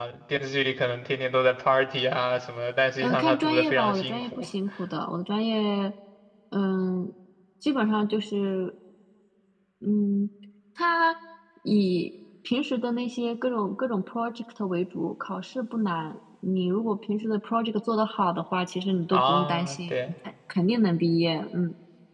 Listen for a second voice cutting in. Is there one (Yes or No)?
Yes